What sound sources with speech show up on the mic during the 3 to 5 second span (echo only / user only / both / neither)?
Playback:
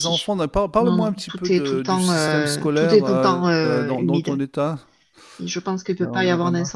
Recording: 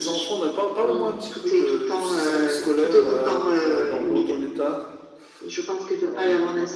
echo only